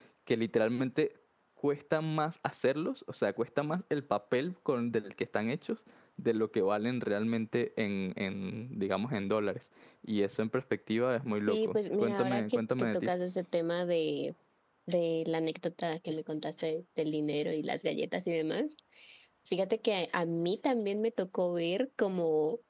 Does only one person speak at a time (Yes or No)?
No